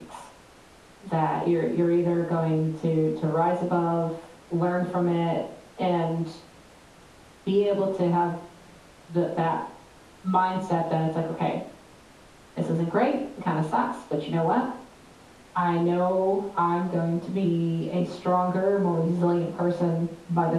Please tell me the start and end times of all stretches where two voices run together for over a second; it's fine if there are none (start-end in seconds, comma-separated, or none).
none